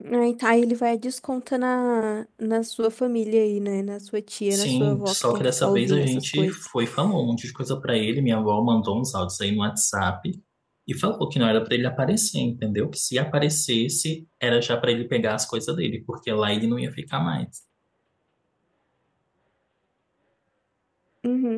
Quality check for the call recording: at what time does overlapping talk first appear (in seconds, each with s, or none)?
4.5 s